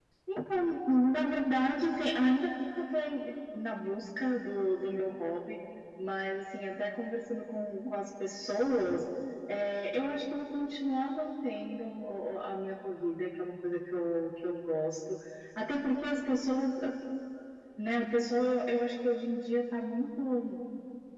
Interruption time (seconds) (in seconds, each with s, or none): none